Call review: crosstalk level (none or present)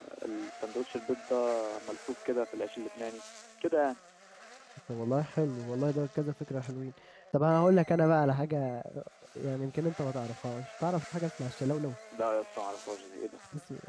none